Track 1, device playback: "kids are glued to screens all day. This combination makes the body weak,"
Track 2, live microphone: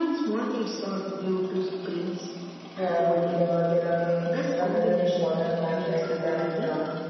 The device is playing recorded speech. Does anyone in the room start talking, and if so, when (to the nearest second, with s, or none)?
3 s